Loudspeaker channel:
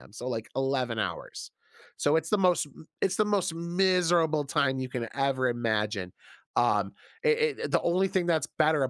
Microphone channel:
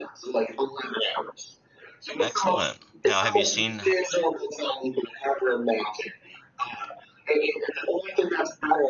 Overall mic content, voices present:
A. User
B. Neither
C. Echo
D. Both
D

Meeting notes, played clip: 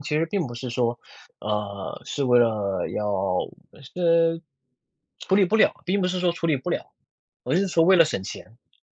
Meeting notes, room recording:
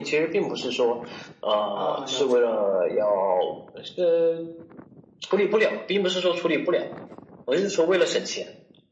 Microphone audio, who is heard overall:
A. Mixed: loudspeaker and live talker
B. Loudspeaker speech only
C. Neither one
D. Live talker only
A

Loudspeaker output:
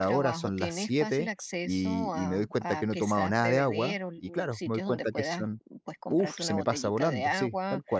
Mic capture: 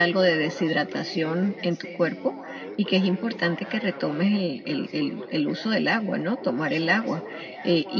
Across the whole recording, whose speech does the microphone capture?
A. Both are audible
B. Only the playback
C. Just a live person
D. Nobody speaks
A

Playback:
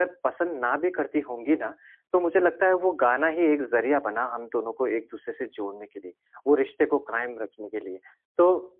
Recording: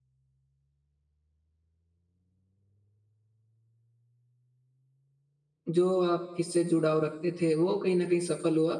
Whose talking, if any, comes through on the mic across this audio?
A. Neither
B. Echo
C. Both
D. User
D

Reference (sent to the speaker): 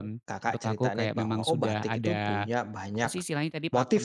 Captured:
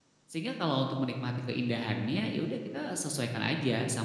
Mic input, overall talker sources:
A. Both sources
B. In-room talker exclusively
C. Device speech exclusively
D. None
B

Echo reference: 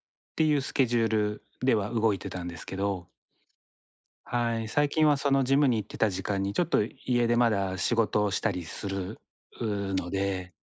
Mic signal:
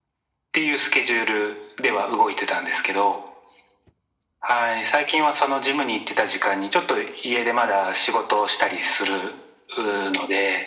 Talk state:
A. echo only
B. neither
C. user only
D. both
A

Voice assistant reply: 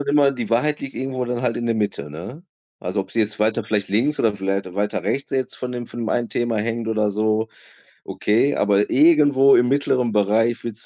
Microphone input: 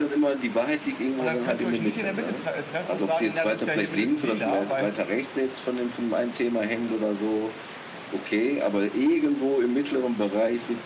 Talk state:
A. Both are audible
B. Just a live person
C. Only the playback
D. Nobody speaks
A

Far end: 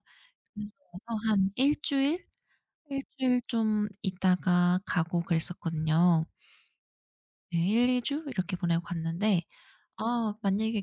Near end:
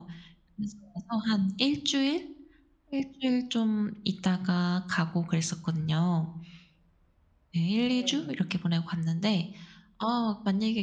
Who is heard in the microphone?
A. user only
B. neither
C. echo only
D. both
D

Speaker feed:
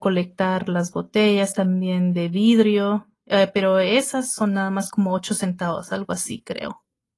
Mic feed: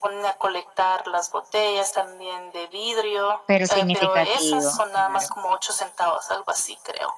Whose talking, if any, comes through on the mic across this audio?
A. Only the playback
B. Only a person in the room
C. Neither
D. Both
D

